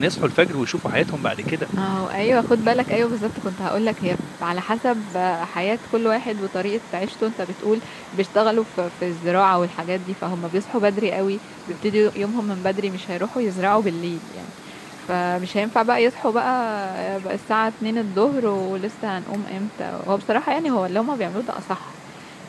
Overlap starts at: none

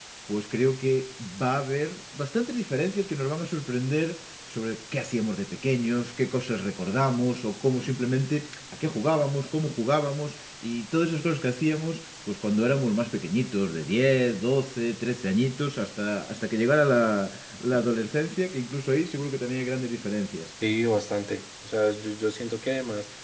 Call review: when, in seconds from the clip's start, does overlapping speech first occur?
none

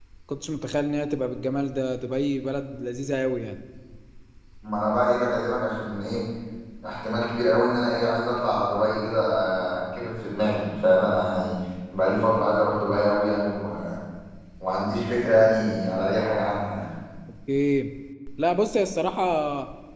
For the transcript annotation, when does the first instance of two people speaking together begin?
none

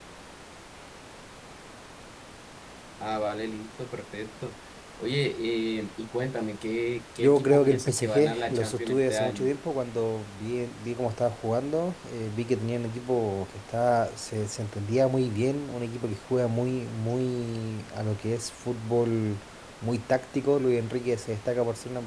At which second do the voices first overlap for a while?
7.2 s

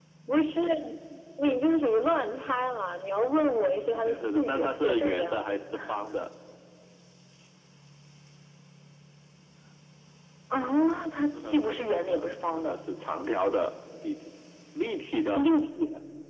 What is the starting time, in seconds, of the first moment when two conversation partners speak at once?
3.8 s

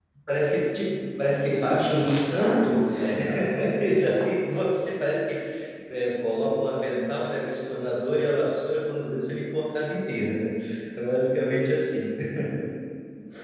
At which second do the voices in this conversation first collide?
1.5 s

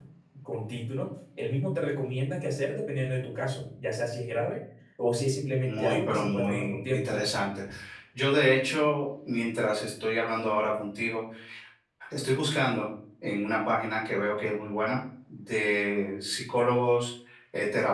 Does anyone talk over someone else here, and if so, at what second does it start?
5.6 s

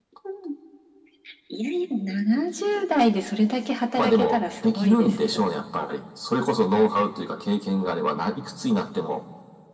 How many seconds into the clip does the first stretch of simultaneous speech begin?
4.0 s

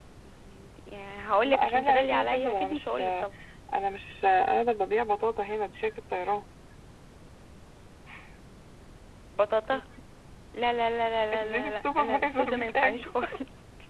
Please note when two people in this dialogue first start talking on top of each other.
1.4 s

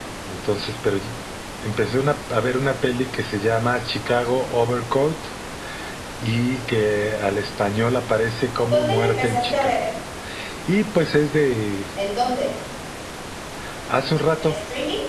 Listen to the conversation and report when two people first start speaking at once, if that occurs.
8.6 s

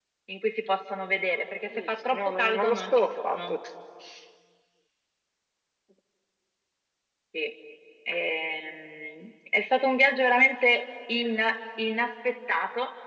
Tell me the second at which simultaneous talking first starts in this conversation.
1.7 s

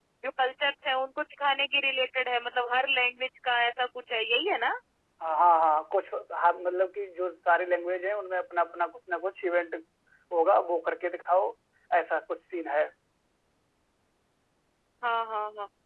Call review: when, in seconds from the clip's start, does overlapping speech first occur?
none

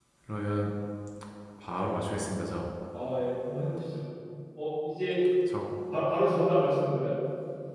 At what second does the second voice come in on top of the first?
none

